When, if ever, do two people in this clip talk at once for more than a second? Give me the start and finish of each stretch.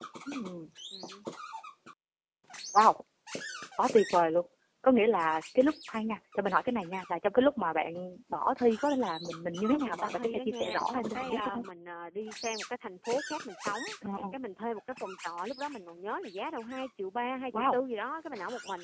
9.7-11.6

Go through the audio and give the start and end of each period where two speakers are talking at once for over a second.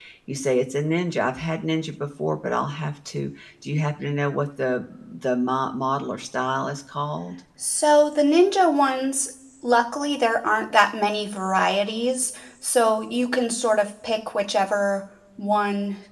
none

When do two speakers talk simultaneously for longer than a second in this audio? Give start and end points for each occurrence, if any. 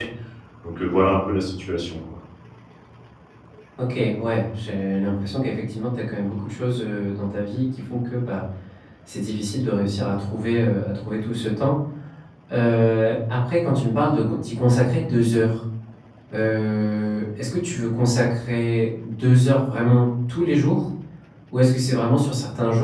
none

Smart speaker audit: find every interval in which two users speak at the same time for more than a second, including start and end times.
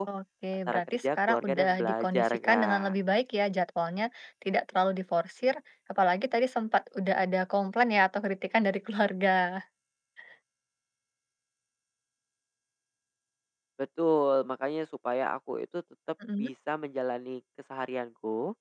0.7-2.9

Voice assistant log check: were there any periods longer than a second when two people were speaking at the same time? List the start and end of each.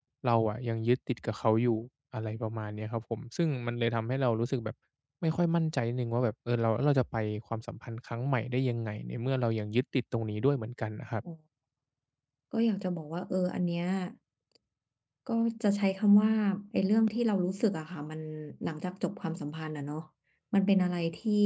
none

